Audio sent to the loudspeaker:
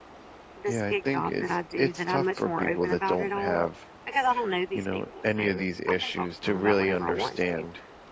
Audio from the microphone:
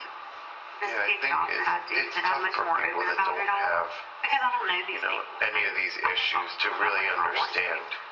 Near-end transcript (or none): none